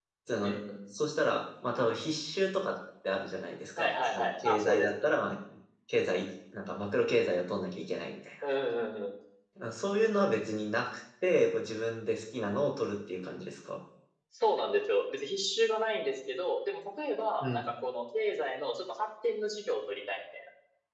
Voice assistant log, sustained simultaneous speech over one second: present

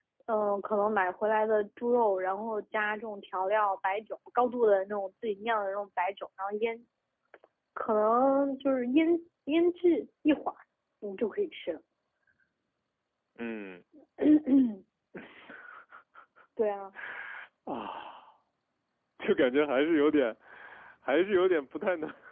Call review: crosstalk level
none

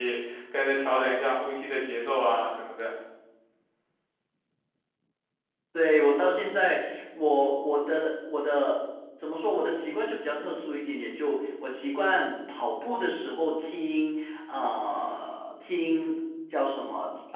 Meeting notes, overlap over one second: none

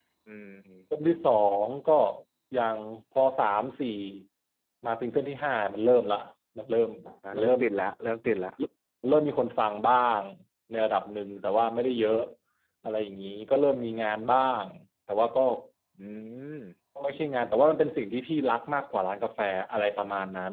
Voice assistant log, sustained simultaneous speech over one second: none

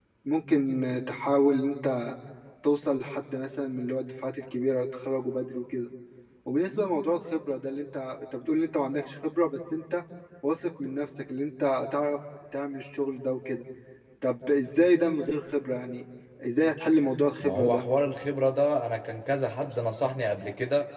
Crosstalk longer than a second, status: none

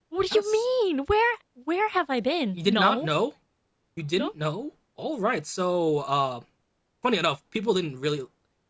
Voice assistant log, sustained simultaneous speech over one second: none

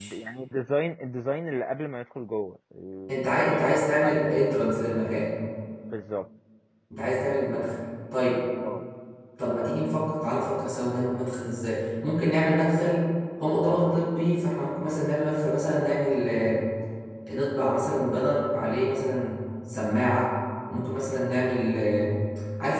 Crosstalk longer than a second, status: present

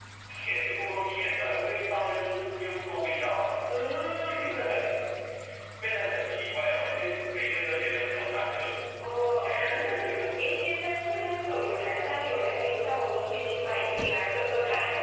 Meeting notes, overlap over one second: none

